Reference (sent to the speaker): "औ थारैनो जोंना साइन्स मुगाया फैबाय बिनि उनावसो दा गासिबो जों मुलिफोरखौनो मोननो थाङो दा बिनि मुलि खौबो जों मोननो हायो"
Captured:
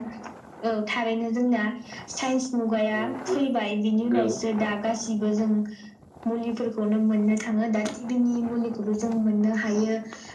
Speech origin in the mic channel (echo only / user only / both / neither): both